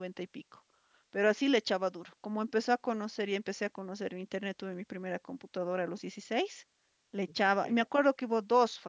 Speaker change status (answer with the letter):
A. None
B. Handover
A